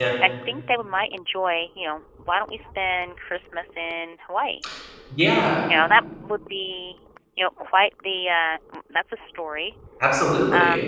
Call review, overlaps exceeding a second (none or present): none